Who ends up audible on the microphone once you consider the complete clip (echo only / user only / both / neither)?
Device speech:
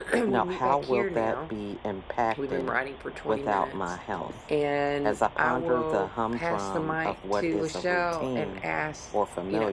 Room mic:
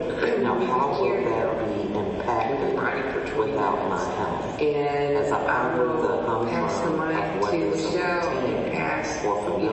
echo only